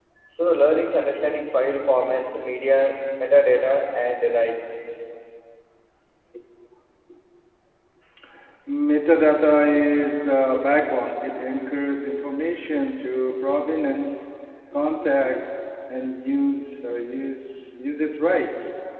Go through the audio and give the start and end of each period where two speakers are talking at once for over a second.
none

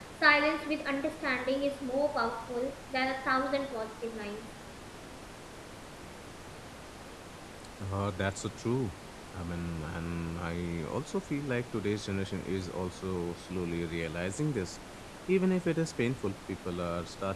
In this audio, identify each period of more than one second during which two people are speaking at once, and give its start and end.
none

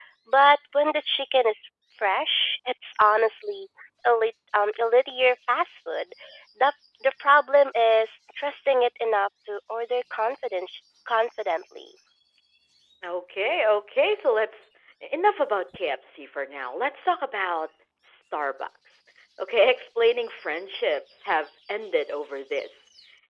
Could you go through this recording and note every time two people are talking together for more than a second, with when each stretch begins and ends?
none

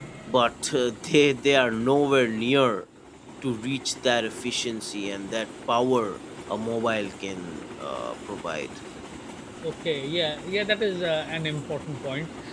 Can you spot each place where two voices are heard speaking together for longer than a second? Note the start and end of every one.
none

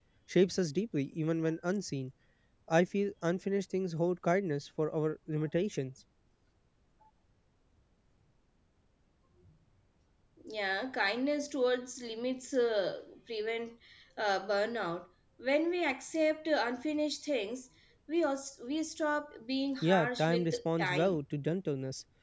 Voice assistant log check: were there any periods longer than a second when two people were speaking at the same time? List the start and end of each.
19.8-21.2

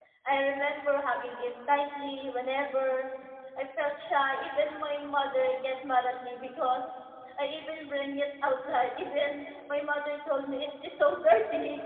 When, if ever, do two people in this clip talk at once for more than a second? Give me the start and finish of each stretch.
none

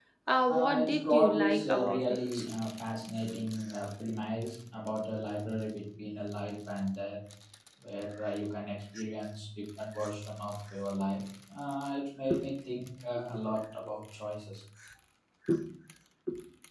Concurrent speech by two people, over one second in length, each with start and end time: 0.5-2.4

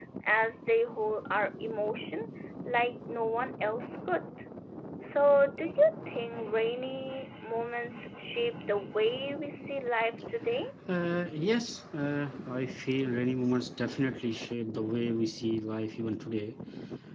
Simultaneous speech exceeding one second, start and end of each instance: none

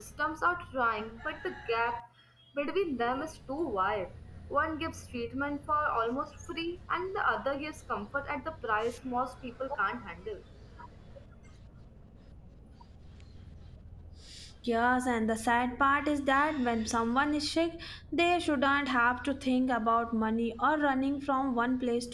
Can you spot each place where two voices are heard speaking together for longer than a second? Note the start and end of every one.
none

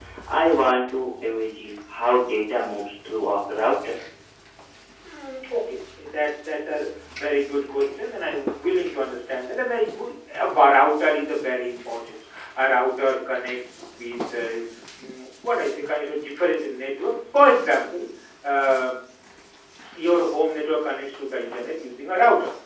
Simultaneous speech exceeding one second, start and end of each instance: none

